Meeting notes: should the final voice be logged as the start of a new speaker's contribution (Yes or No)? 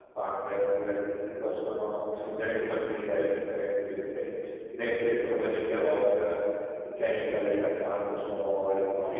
Yes